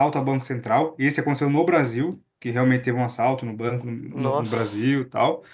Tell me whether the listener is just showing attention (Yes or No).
Yes